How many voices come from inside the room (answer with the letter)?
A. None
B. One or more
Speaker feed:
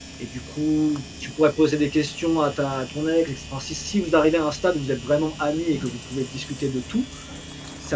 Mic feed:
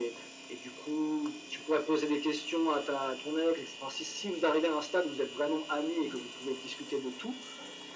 A